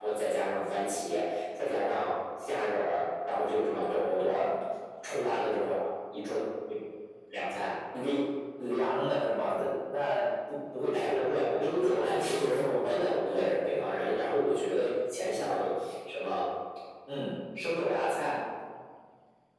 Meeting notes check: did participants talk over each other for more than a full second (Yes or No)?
Yes